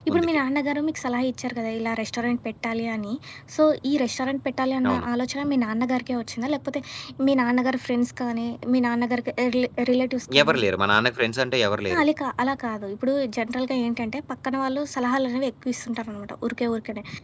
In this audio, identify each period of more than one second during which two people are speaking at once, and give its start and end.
none

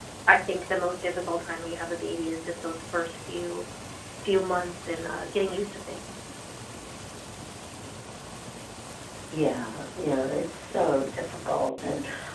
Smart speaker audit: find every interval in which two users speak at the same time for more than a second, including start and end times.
none

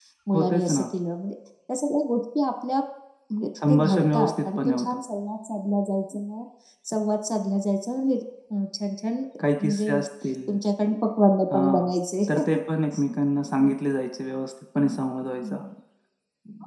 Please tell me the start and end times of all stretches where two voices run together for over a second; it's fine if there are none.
3.7-5.0

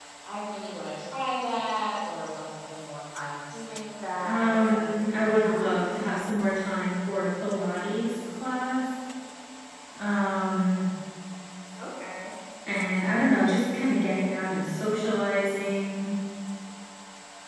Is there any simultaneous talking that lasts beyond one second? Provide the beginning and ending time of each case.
4.2-5.7

